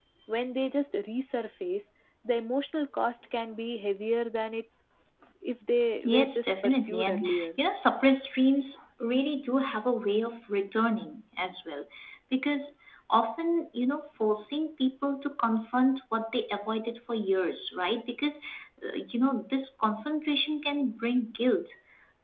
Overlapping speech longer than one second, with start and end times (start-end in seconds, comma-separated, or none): 6.0-7.5